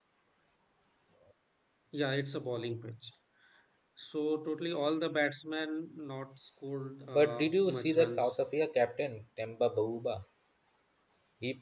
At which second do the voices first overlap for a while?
7.1 s

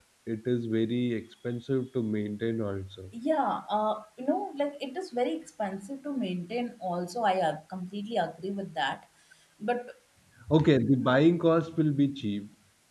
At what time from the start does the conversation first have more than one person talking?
none

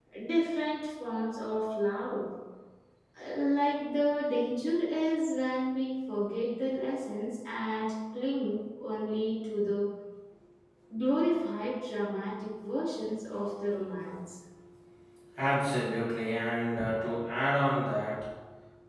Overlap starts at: none

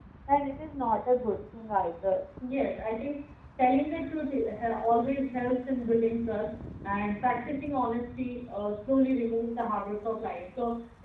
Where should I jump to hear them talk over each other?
none

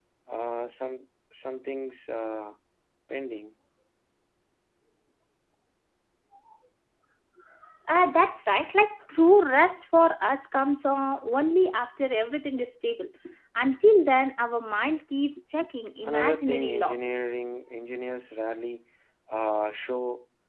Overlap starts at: 16.0 s

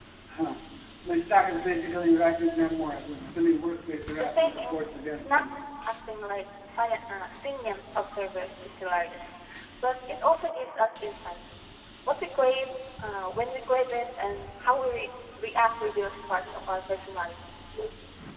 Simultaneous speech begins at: 4.2 s

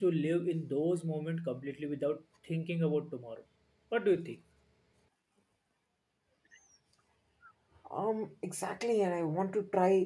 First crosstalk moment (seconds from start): none

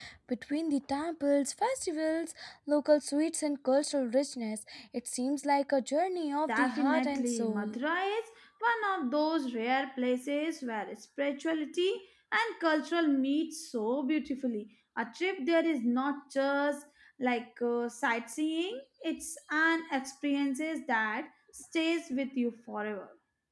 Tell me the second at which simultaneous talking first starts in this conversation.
6.5 s

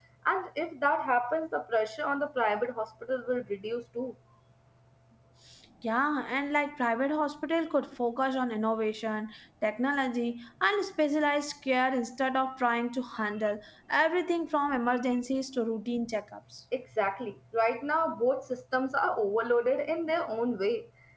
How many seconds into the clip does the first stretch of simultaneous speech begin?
none

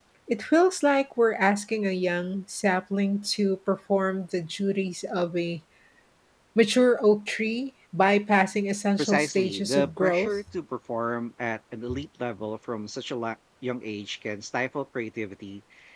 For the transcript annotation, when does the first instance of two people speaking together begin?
9.0 s

